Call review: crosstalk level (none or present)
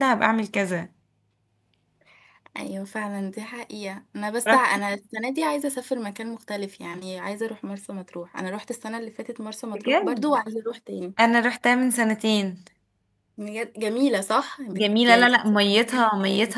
present